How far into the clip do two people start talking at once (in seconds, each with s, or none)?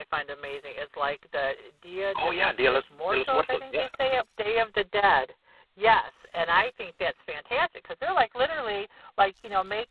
2.1 s